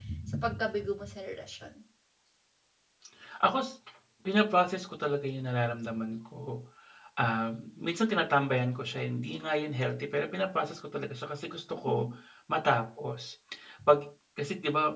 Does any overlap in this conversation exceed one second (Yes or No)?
No